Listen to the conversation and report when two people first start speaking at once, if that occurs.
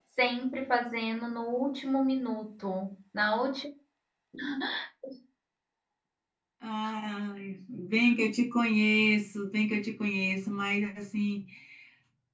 none

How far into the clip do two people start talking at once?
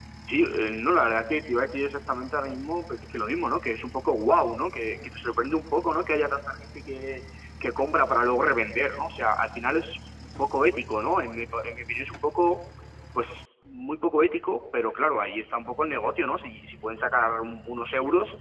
none

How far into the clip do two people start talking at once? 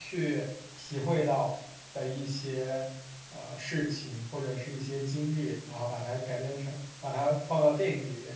none

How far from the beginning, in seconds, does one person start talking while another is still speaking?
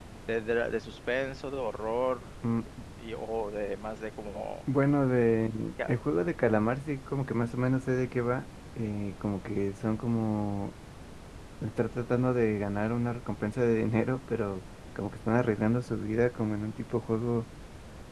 none

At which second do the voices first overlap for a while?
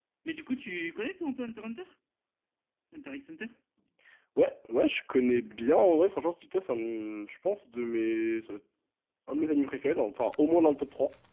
none

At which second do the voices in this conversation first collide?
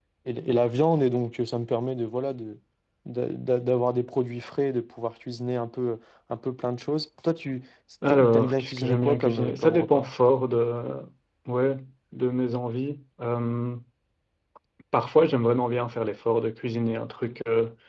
8 s

